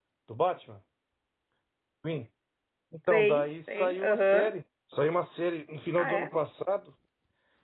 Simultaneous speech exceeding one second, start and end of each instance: 3.1-4.5

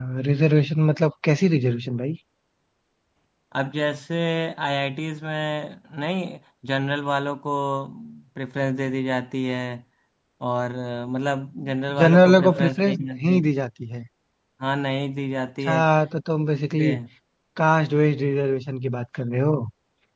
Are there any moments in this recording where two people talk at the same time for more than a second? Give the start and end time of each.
12.0-13.4

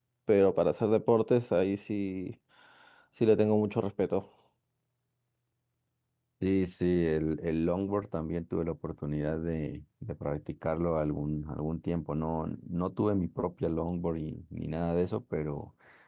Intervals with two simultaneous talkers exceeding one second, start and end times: none

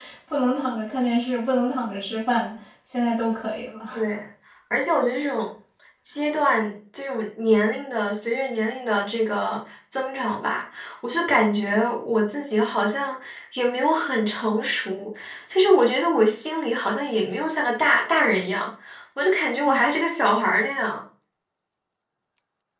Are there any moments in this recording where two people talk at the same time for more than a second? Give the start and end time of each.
none

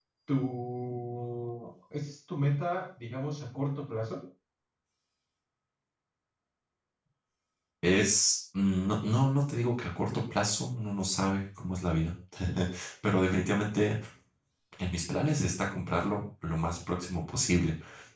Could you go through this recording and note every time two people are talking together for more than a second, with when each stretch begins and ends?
none

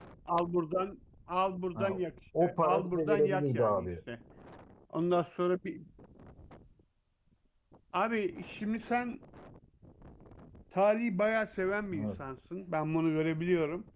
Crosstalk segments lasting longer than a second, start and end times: 2.4-3.9

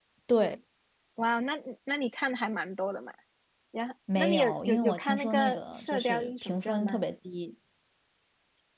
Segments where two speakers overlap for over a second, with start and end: 4.2-7.0

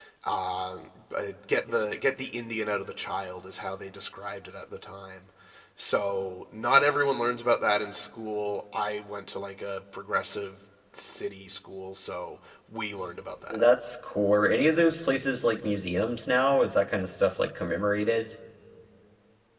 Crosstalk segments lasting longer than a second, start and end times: none

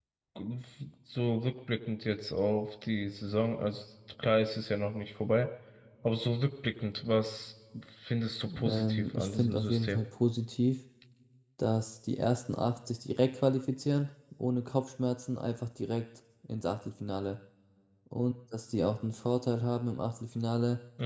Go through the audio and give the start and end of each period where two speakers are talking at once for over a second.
8.6-10.0

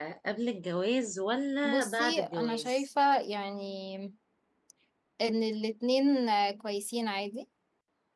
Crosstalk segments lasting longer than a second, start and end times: 1.6-2.8

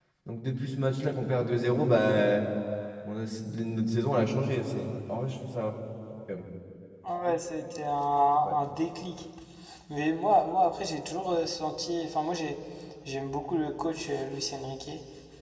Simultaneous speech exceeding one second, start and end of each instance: none

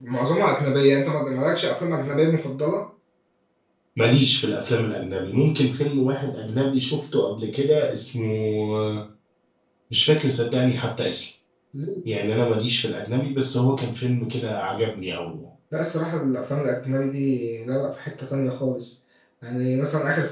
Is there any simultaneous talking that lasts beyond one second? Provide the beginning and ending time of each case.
none

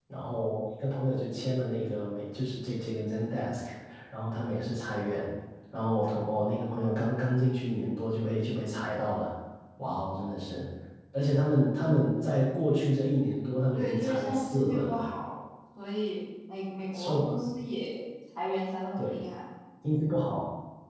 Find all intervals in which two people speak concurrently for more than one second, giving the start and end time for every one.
13.8-15.0

